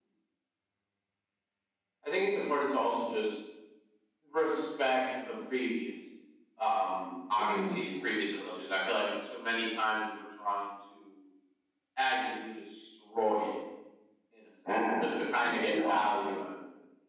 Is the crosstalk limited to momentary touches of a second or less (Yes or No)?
No